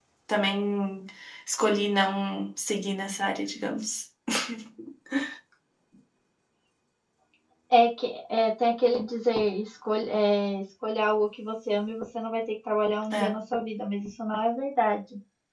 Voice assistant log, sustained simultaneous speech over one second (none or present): none